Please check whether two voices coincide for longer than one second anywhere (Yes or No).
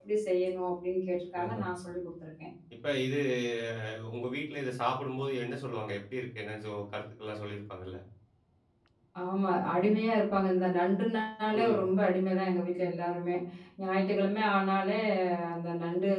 No